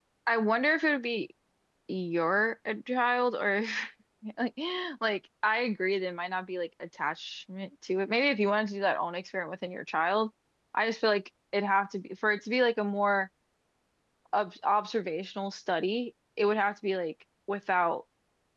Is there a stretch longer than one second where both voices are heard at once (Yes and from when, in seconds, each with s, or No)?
No